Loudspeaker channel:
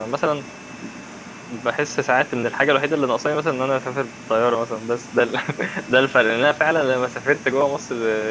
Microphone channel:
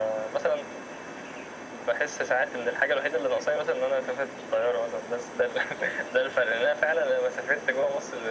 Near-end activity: none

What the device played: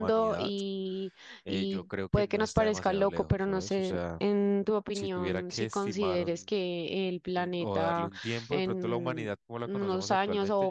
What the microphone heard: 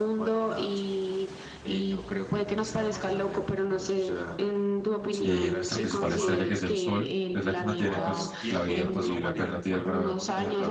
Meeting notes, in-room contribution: present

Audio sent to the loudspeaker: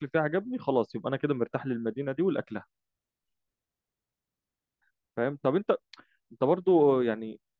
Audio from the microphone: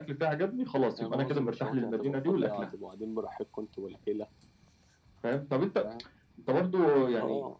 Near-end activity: present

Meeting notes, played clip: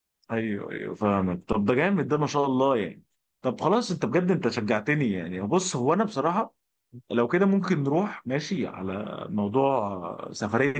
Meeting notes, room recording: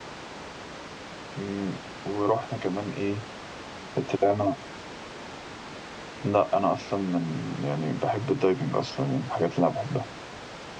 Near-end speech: present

